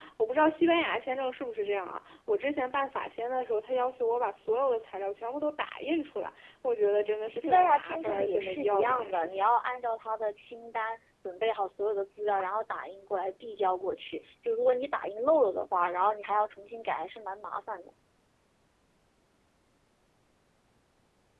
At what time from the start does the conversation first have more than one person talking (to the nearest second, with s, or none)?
7 s